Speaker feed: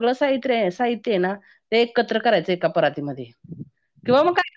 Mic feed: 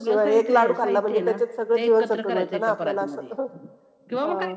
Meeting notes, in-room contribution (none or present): present